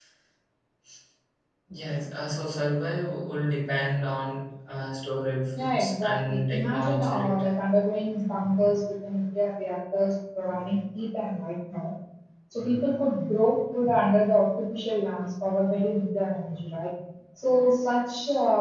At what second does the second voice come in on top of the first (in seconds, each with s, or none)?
5.5 s